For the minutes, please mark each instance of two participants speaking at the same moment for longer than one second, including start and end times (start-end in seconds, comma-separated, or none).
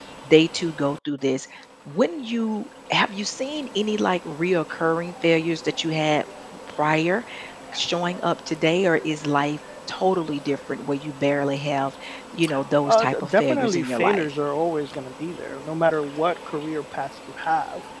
12.8-14.3